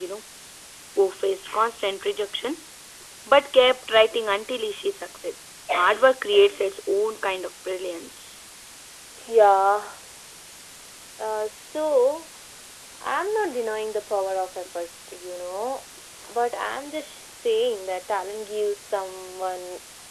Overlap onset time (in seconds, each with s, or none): none